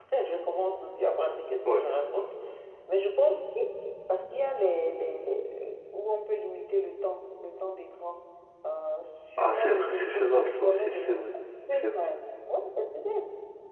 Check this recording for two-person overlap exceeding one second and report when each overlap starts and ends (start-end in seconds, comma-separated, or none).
9.4-11.1